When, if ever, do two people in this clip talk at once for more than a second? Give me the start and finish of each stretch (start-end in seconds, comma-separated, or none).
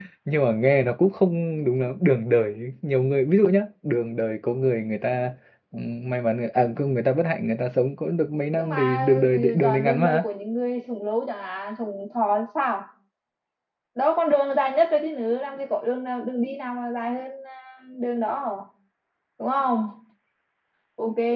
8.6-10.2